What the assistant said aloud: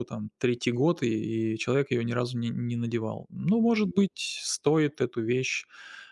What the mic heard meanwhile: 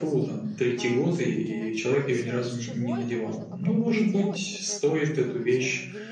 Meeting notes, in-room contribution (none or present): present